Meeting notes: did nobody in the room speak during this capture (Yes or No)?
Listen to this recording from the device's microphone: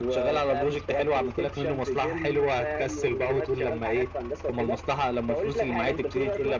Yes